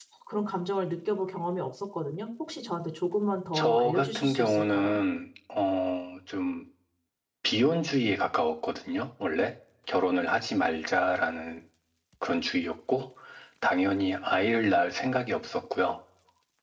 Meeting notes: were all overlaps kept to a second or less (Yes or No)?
No